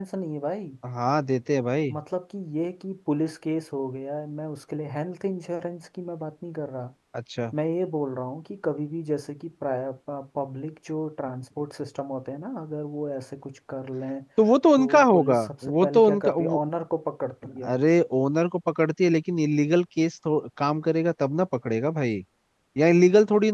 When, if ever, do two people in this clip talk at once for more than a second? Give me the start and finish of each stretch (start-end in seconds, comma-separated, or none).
14.8-16.6